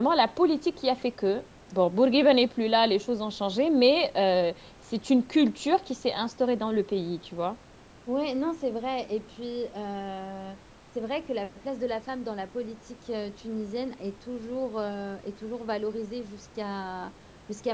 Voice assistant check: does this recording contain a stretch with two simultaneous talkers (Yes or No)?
No